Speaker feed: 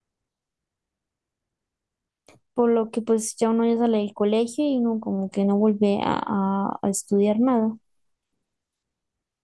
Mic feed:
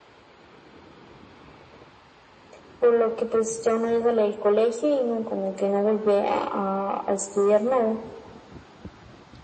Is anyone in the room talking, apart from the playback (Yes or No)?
No